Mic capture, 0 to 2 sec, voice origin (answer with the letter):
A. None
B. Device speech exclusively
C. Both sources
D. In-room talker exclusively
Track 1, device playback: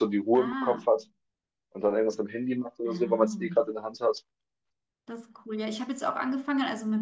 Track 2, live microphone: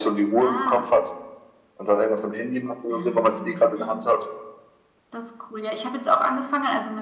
B